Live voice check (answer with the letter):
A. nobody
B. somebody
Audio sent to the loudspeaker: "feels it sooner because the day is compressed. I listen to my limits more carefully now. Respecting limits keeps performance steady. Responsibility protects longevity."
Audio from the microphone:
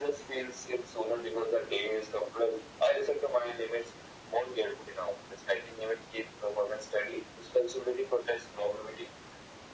A